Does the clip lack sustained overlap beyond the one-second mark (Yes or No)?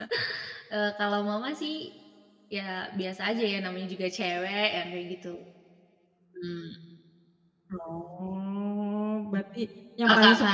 Yes